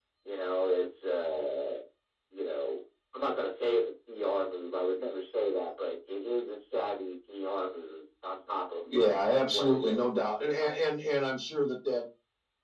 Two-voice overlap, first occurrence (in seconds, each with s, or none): 8.9 s